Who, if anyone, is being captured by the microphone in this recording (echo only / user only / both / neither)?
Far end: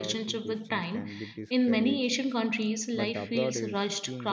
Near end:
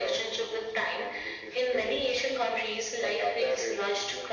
echo only